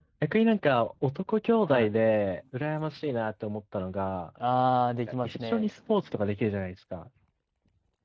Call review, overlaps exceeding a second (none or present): none